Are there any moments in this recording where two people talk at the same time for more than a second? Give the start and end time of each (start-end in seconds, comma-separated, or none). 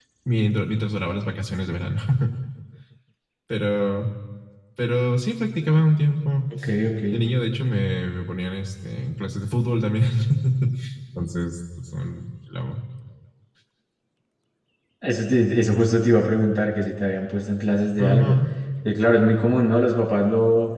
none